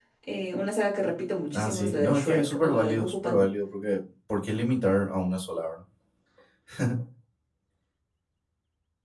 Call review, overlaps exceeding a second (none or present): present